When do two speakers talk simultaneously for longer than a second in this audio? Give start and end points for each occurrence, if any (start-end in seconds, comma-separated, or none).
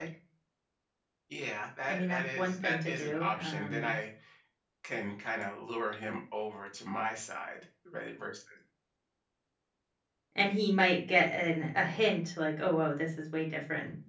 1.9-3.9